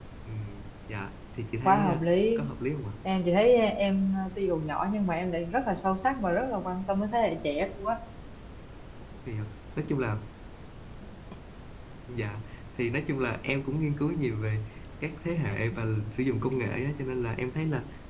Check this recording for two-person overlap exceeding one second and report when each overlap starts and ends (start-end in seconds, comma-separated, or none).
none